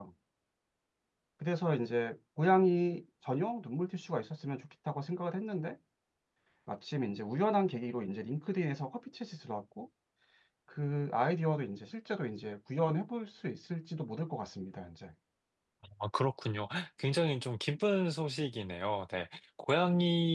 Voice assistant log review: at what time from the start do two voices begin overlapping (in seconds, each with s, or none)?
none